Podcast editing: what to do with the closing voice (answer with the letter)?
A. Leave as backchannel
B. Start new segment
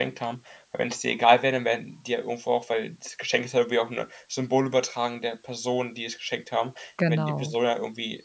A